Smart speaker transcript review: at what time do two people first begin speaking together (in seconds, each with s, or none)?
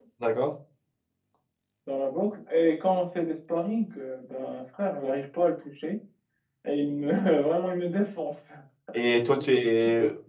none